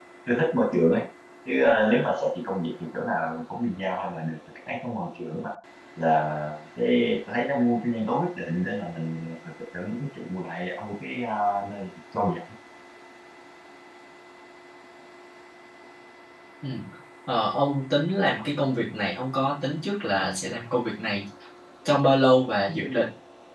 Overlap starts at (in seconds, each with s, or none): none